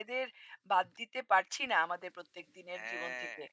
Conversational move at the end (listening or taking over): taking over